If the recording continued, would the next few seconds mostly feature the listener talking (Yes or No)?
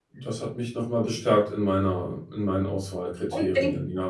Yes